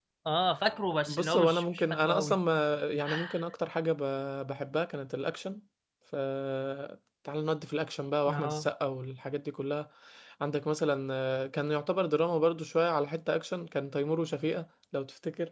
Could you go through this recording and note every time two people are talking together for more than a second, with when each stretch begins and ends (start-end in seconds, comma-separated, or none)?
1.1-2.4